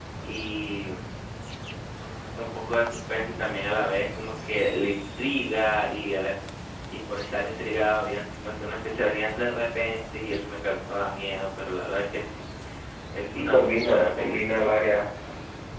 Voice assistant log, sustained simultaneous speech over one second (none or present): present